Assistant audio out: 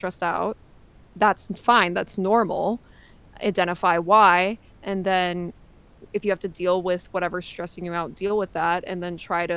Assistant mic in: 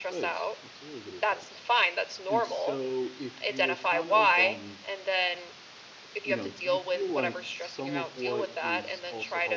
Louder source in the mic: echo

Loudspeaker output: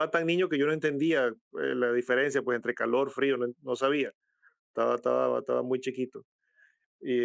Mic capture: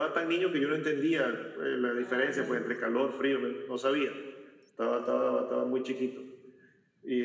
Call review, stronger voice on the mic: echo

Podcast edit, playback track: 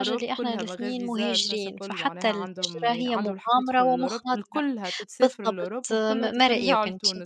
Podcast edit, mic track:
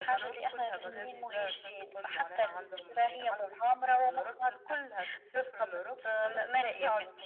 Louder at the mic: echo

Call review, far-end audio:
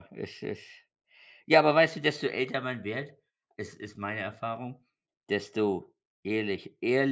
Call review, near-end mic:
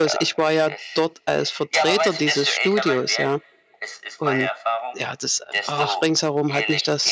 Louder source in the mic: user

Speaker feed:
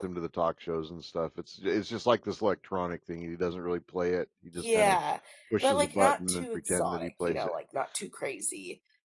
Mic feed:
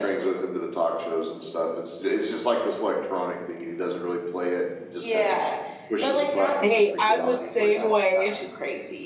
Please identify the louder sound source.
user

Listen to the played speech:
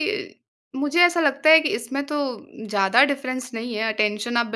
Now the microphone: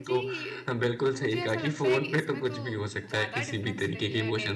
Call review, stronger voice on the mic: user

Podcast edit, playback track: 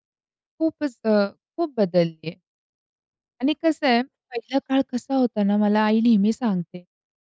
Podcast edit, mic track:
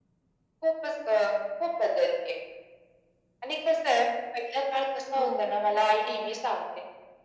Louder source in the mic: echo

